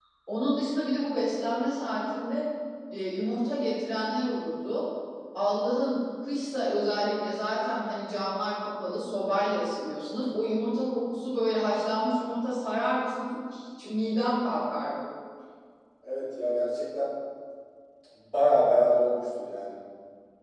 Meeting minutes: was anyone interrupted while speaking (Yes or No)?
No